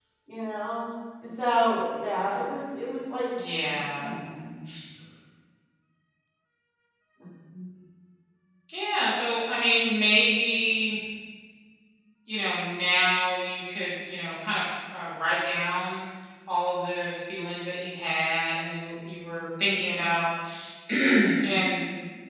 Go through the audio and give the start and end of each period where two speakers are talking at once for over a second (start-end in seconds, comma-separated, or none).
none